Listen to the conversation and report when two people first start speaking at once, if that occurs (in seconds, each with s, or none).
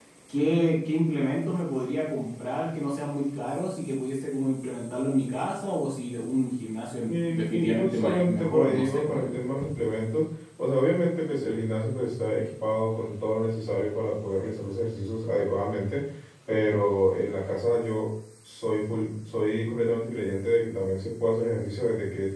7.1 s